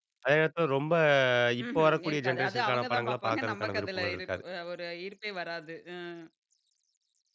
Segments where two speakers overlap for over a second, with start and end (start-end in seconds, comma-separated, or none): 1.8-4.4